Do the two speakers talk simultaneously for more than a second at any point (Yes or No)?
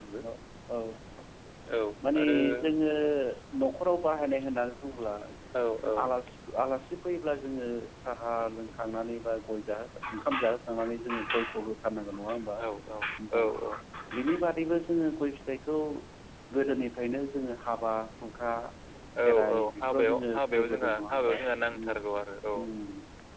Yes